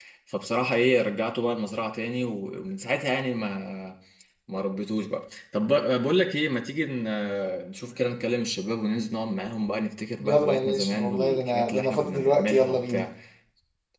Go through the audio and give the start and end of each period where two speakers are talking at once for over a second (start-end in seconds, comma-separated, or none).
10.2-13.1